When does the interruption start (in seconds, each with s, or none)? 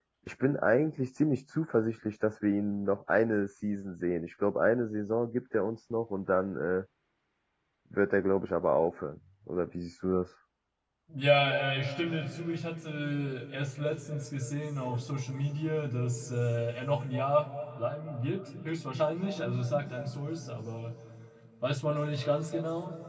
none